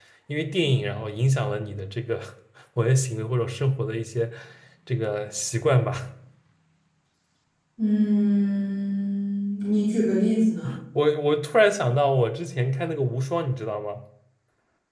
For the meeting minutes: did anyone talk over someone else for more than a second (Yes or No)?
No